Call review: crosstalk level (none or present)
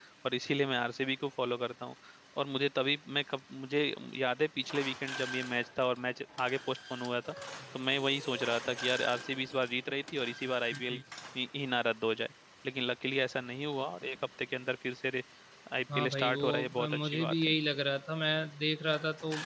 present